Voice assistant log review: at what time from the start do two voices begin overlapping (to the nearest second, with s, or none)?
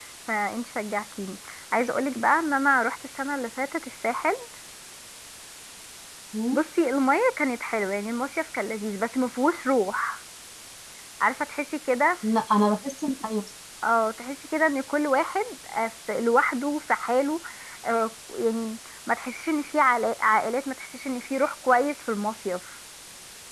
none